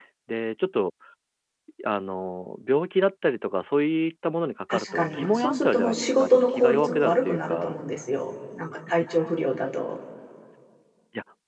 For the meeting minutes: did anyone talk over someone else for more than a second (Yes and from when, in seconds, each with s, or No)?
Yes, from 4.7 s